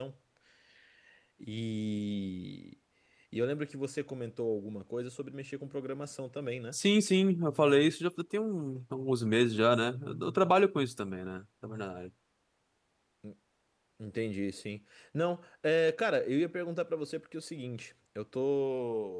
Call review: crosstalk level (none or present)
none